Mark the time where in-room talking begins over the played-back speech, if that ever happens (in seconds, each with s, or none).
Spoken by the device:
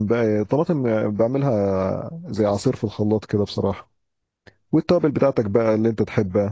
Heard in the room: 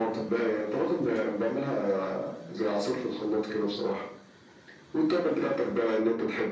none